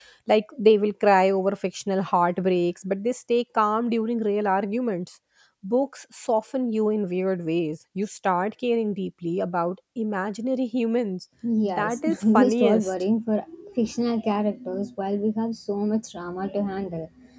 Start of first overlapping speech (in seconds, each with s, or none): 11.4 s